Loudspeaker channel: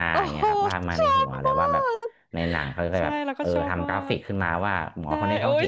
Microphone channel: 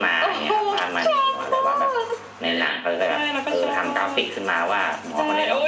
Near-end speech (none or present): none